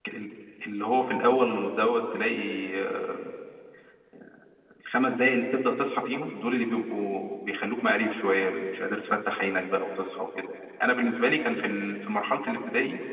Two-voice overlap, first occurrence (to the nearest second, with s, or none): none